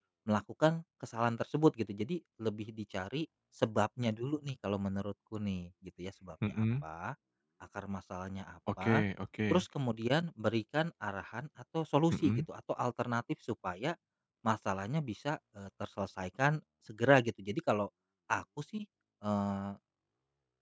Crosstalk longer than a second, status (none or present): none